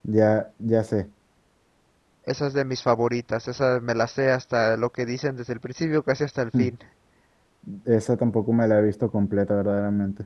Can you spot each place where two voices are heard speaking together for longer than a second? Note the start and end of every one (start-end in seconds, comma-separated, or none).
none